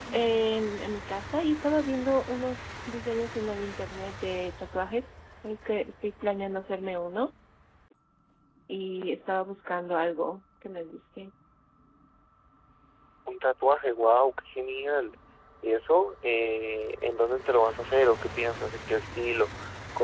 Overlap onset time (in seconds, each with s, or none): none